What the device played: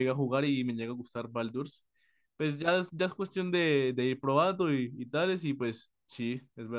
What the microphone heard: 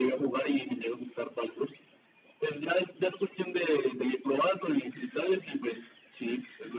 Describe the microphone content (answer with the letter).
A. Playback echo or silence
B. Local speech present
A